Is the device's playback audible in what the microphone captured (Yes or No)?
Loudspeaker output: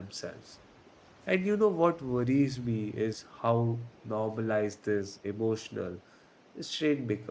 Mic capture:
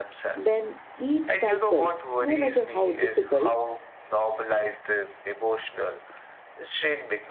Yes